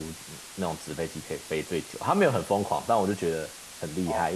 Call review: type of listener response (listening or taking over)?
listening